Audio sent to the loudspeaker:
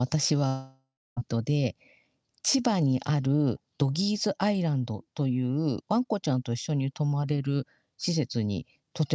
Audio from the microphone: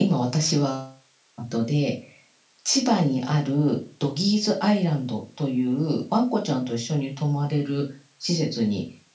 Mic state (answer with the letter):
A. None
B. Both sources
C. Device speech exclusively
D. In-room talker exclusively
C